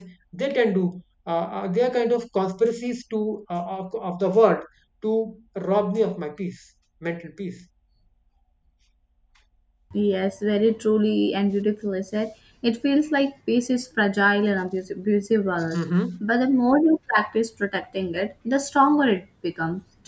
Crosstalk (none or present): none